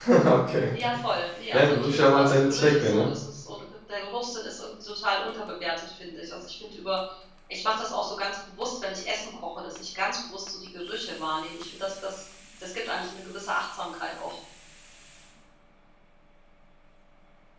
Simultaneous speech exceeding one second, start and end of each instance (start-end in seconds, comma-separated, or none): 1.5-3.1